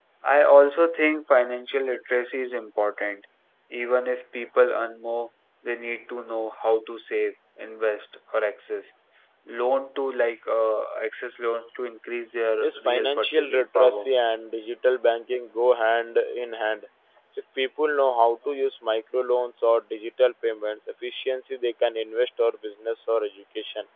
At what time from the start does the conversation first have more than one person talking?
12.6 s

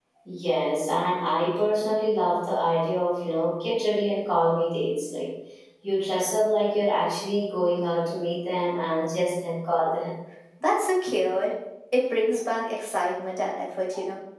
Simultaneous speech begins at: none

